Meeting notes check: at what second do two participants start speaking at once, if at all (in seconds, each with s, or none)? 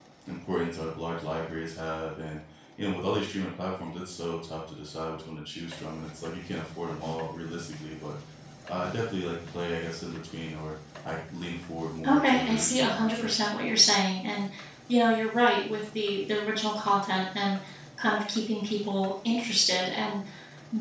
12.0 s